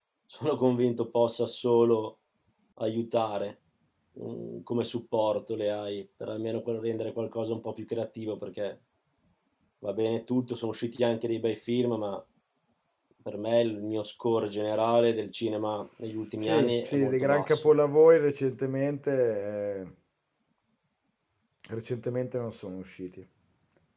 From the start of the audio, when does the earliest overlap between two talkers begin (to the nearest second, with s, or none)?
16 s